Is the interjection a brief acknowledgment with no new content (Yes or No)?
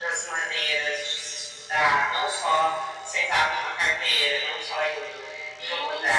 No